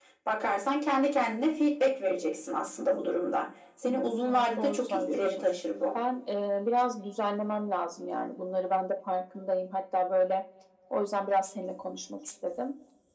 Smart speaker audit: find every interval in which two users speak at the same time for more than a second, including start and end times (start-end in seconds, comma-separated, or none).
3.8-5.4